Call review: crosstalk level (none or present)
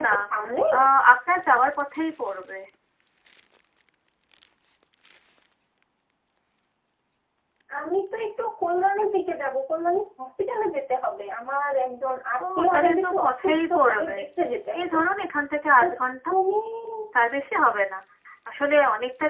present